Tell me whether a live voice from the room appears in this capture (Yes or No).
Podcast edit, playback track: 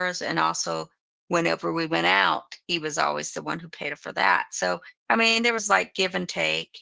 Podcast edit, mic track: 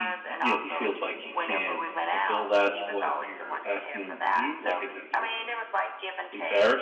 Yes